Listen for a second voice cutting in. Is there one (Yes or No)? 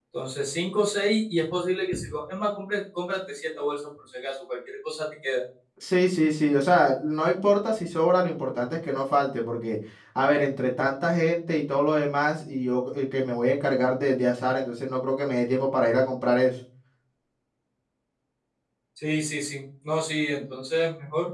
No